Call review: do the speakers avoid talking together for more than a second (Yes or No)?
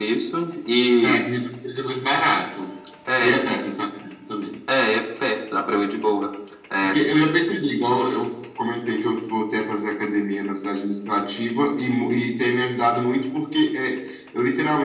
Yes